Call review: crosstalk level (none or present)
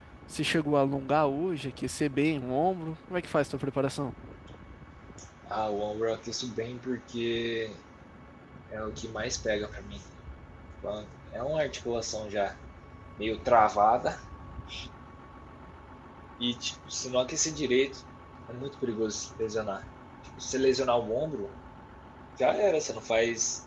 none